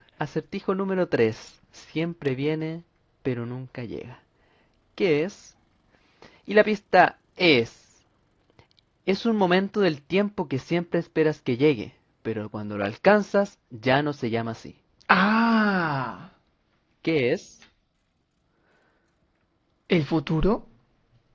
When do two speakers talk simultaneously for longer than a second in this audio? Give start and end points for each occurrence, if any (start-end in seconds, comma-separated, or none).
none